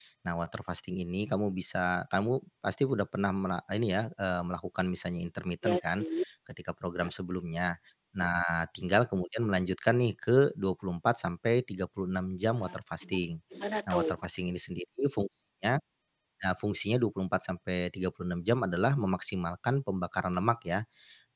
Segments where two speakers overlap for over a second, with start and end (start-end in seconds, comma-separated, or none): none